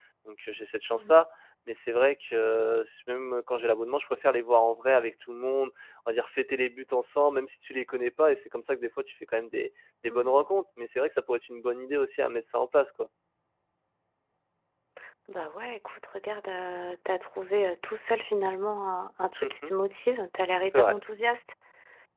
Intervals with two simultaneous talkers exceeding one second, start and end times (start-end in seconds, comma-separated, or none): none